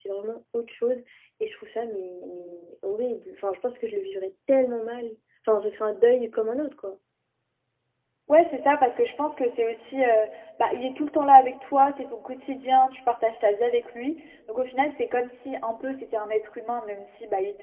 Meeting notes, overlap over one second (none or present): none